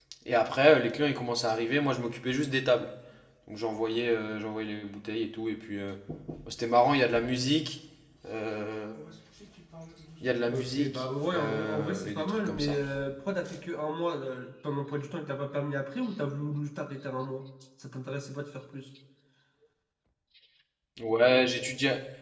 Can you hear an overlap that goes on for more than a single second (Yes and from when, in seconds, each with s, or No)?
Yes, from 10.5 s